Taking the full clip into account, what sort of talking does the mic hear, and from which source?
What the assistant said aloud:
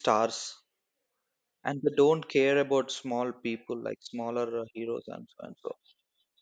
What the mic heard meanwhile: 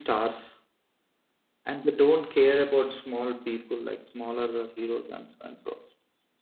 echo only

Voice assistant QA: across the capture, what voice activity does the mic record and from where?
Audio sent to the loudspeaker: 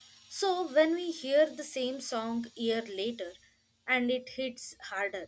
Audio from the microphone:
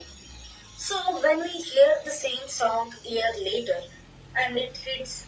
echo only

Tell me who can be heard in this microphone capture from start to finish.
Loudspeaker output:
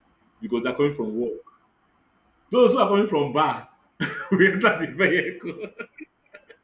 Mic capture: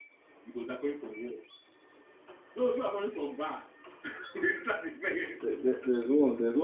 both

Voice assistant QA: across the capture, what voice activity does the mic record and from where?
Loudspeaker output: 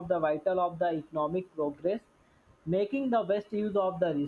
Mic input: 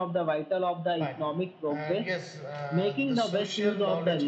both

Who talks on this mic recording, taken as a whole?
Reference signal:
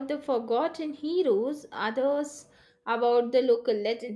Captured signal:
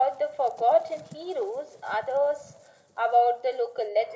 echo only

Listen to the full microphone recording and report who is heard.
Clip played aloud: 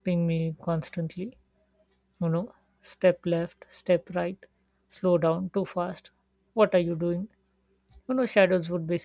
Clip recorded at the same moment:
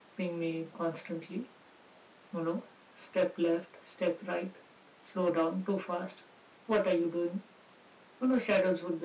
echo only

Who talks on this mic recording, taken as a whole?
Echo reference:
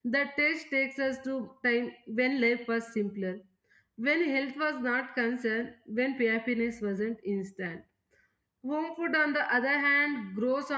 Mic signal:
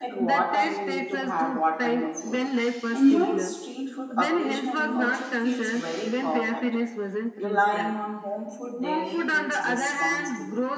both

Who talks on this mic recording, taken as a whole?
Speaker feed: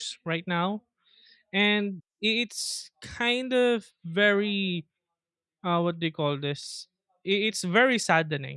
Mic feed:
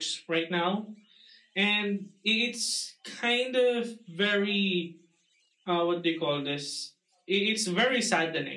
echo only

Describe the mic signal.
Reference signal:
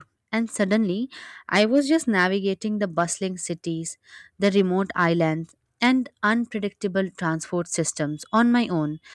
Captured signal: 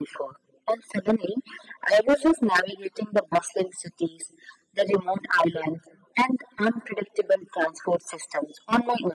echo only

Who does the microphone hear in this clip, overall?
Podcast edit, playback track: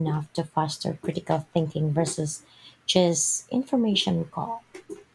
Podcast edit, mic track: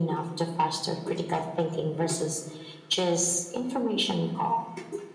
echo only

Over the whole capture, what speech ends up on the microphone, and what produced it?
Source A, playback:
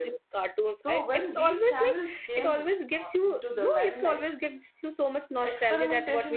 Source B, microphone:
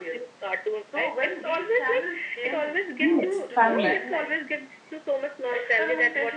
both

